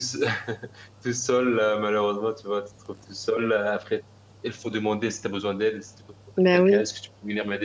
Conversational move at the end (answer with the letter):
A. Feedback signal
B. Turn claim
A